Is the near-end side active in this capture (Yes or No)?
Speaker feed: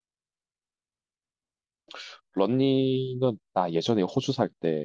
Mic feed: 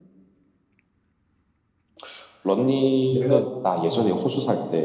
Yes